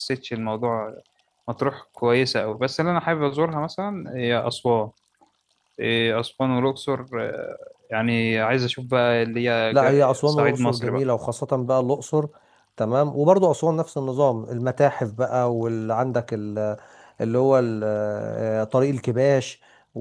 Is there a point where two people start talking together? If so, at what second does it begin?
9.7 s

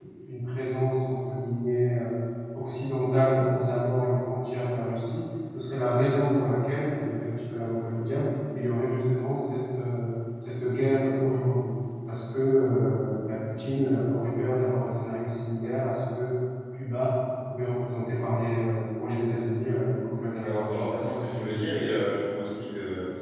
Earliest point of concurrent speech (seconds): 20.4 s

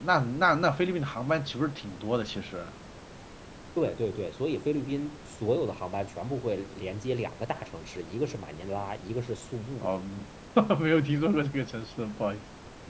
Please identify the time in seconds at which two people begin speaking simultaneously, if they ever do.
none

